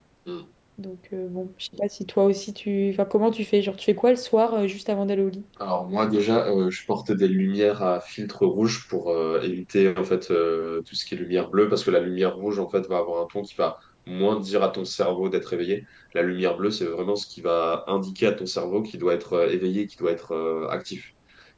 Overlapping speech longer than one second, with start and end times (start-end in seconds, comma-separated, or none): none